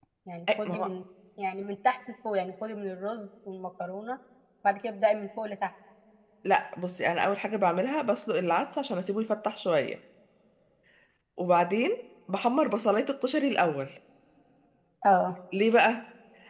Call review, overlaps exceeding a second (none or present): none